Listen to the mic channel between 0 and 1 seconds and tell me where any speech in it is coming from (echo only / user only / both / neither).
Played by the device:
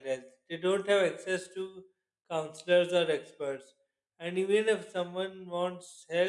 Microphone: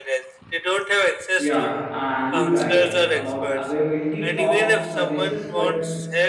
echo only